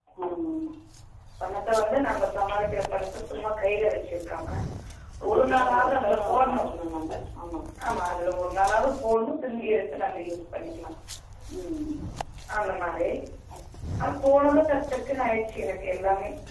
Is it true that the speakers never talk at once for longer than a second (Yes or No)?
No